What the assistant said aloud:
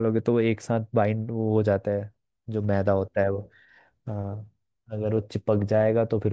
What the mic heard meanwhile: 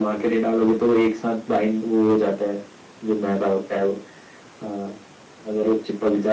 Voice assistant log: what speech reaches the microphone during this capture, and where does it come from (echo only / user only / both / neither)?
echo only